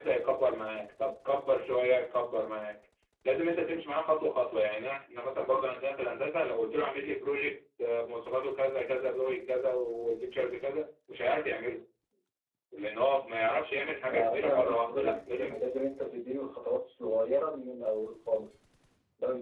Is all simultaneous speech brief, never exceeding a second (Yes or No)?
No